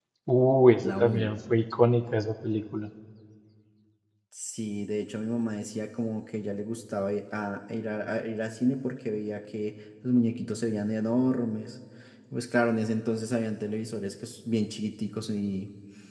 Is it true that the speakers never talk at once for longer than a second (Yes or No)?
Yes